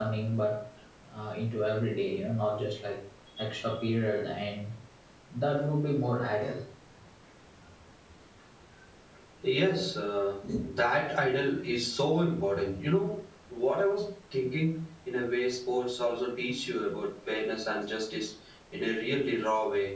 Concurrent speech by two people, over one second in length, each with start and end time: none

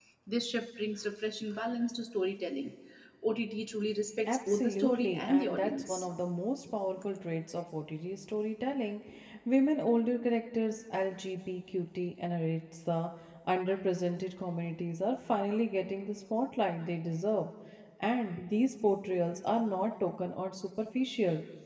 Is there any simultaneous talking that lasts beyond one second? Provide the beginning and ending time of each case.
4.3-6.0

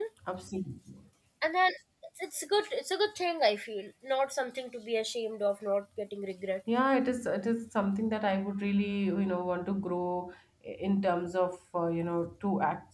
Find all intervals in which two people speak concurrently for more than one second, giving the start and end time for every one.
none

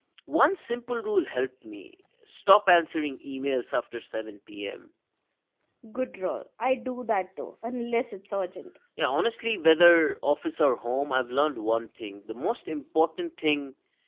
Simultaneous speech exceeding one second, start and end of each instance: none

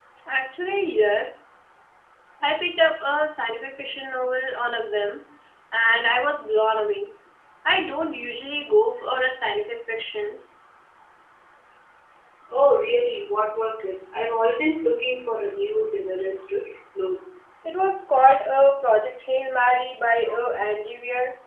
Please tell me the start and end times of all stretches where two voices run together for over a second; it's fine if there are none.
none

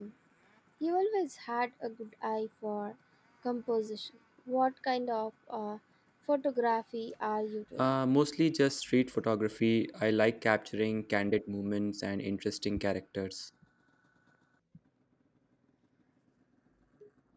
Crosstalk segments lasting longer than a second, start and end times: none

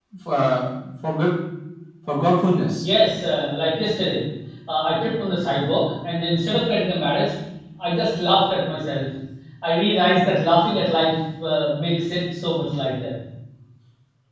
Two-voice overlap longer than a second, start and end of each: none

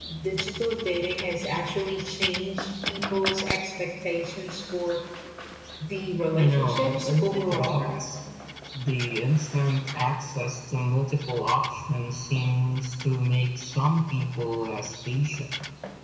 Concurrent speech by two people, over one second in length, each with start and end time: 6.4-7.8

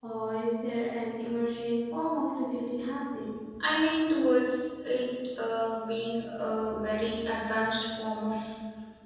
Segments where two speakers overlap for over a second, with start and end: none

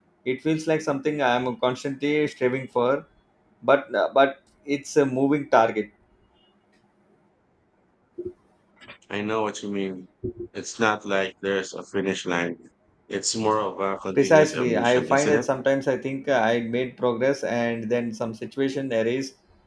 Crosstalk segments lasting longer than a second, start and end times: 14.2-15.4

